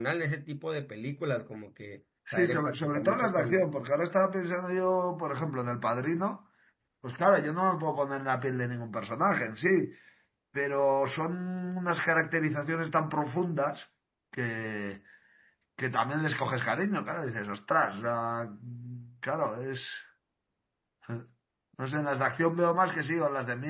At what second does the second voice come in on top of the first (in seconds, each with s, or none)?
2.3 s